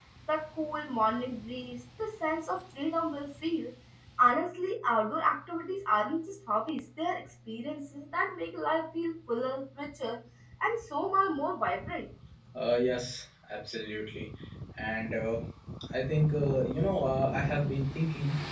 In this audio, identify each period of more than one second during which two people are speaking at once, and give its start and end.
none

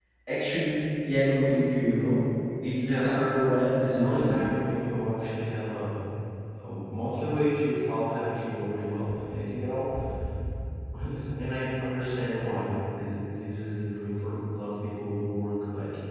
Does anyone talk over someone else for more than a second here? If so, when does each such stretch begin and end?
2.8-4.4

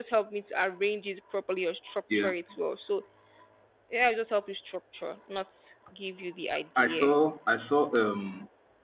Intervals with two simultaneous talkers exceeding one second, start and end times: none

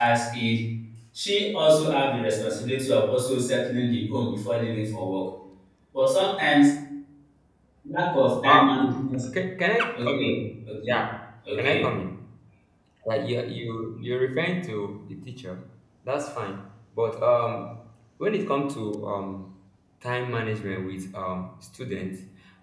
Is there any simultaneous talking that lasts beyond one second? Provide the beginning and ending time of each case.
none

